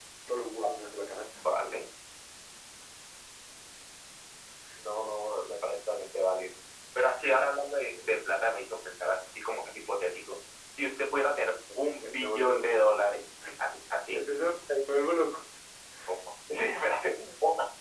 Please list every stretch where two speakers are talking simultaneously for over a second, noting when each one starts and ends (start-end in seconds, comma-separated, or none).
11.5-12.8